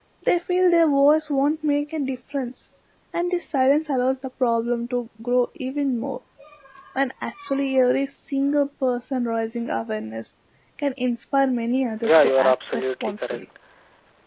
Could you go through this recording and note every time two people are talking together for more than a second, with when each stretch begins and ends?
12.0-13.4

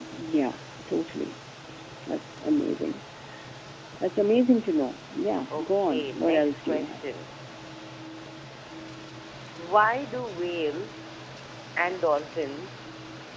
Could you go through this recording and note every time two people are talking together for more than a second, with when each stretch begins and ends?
5.5-7.0

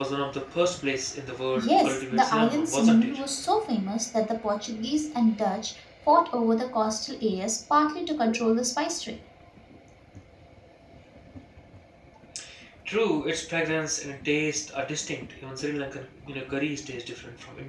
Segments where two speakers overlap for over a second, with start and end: 1.6-3.2

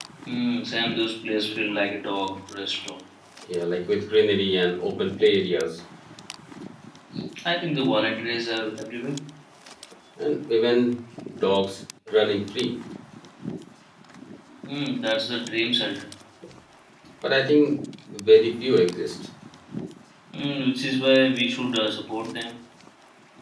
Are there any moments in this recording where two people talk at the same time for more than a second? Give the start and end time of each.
none

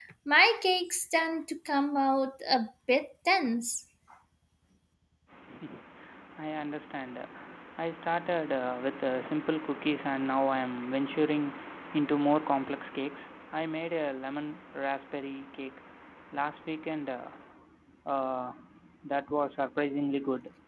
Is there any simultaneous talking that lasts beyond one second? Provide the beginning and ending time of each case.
none

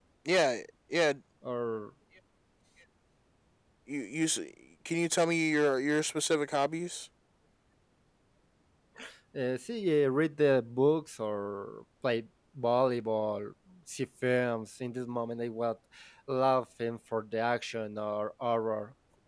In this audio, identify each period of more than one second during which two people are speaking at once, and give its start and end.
none

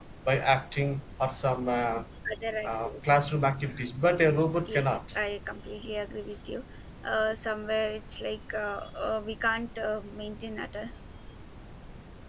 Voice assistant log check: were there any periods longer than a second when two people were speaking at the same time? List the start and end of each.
none

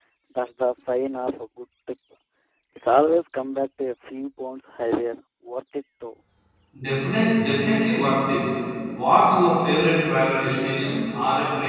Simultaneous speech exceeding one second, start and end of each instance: none

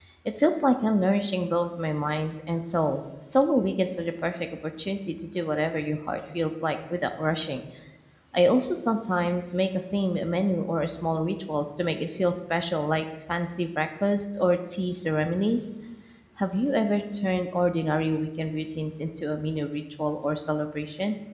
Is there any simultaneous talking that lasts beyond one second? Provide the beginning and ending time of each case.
none

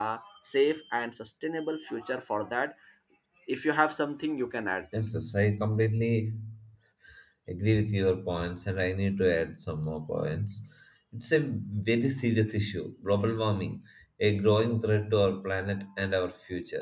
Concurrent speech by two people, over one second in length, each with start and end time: none

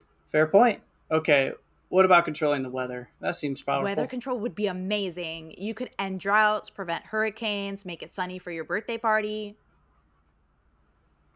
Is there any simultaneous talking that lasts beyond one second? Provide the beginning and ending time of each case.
none

